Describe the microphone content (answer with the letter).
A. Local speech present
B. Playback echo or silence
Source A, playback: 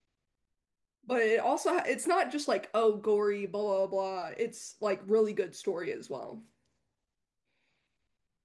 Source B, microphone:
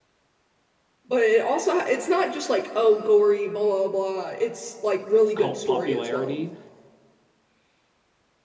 A